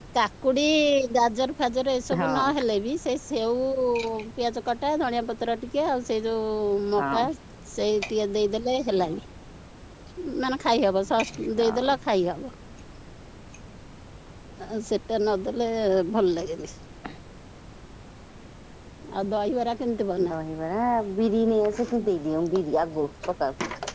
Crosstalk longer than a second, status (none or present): none